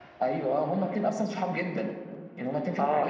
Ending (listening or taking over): taking over